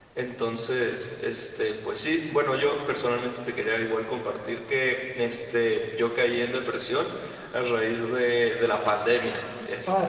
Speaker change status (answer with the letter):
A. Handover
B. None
A